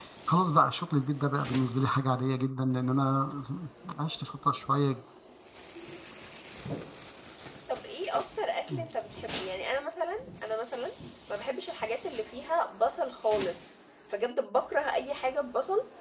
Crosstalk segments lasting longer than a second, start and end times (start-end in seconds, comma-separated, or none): none